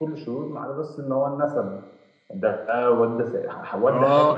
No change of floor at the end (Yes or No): No